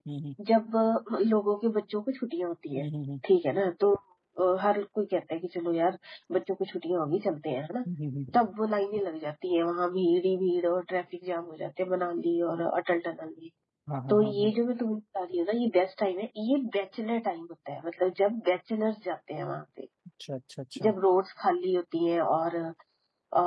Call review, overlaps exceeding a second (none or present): none